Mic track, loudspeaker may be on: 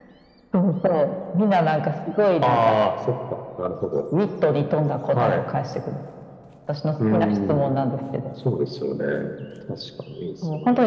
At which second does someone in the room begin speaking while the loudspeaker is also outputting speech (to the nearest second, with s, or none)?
none